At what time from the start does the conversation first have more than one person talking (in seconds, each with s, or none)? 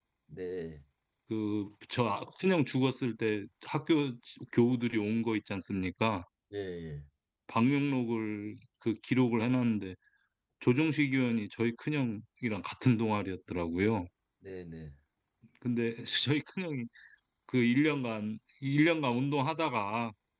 none